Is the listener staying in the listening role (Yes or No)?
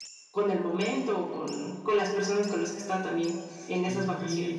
No